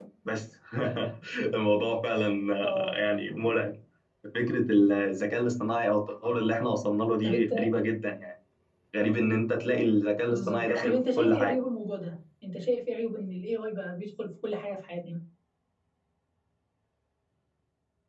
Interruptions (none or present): present